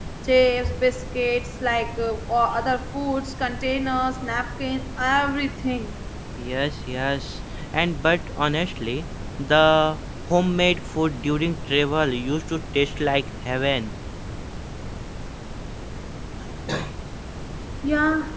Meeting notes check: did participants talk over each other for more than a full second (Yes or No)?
No